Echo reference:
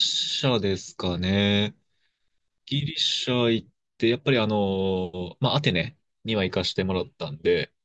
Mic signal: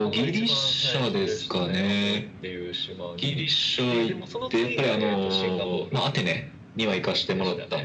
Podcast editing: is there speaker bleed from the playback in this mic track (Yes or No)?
Yes